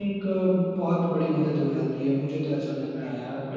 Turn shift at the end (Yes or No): Yes